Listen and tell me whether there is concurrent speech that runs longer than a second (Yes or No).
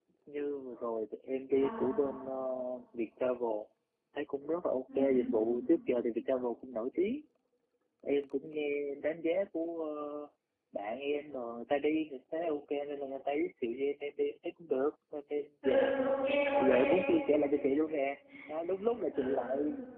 No